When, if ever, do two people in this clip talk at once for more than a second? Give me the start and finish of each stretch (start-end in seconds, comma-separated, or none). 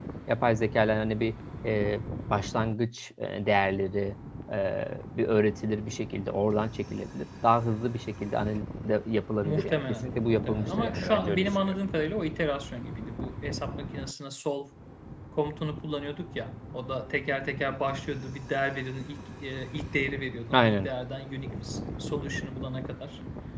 9.4-11.8